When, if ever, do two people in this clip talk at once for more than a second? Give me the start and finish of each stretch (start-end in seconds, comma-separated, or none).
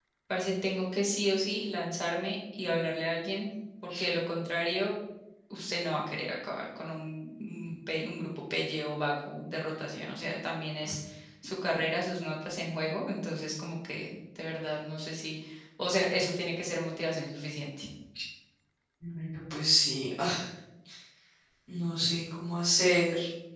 none